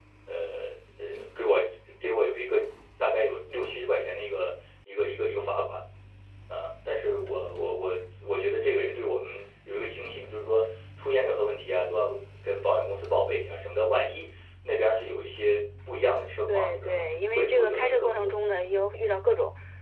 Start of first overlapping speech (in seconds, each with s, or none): 16.5 s